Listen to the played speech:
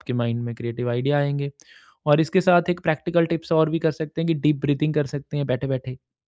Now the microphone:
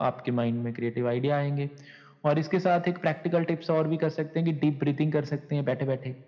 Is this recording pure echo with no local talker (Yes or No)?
Yes